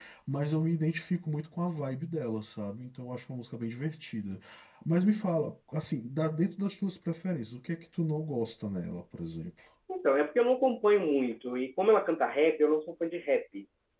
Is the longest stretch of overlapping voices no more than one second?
Yes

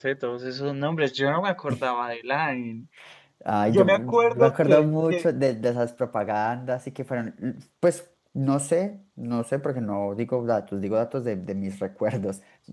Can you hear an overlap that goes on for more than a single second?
Yes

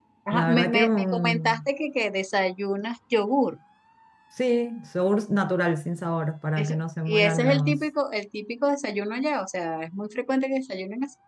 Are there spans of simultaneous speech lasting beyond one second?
Yes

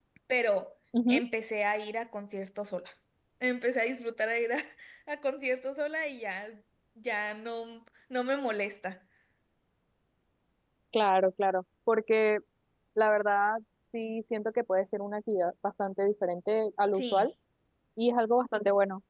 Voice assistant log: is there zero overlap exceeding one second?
Yes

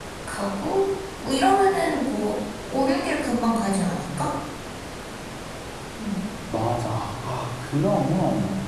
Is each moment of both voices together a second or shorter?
Yes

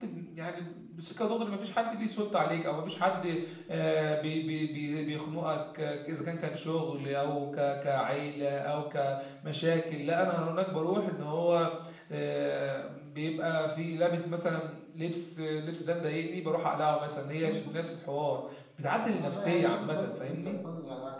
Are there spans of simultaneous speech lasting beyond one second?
Yes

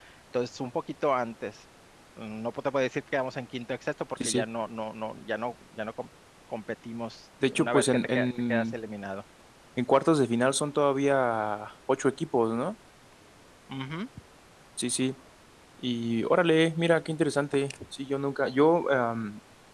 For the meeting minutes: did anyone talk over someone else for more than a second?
Yes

